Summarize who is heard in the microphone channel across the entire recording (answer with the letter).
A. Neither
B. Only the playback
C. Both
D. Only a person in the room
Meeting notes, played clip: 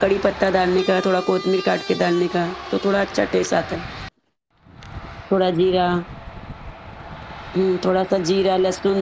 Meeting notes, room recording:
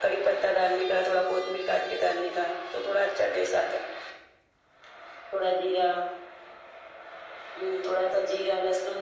B